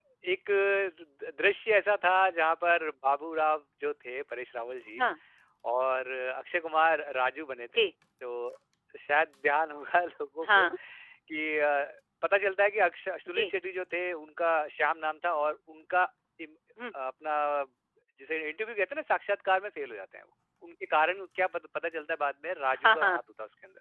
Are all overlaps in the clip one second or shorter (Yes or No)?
Yes